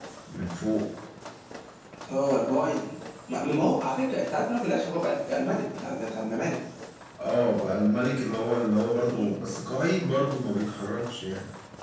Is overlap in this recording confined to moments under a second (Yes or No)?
Yes